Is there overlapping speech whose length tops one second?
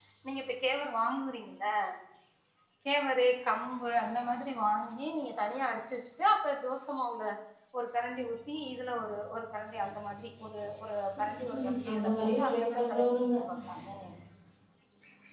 Yes, from 11.3 s

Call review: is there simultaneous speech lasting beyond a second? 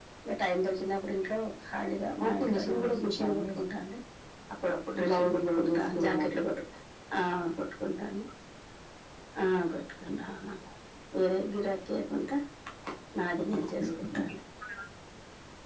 Yes, from 2.3 s

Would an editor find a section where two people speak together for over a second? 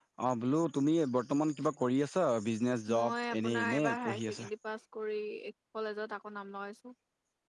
Yes, from 2.9 s

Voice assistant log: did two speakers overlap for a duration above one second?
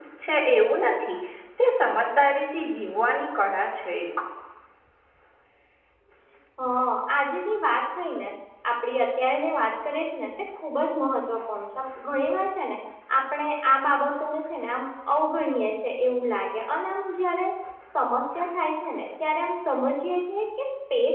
No

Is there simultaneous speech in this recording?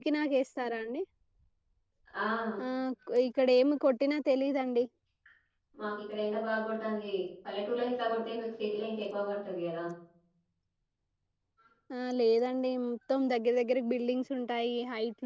No

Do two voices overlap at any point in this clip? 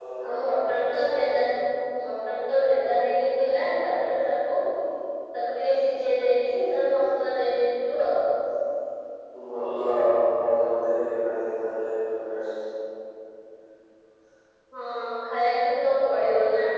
No

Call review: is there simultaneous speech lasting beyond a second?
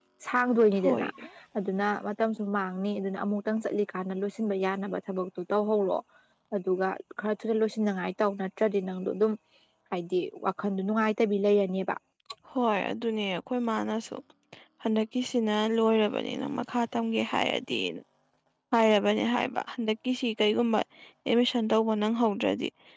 No

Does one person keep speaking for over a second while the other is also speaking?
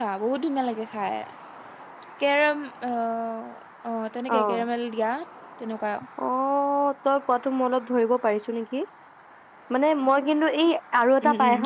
No

